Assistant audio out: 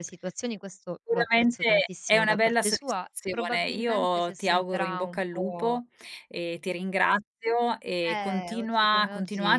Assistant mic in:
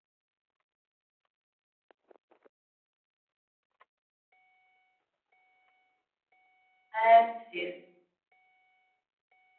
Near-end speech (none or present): present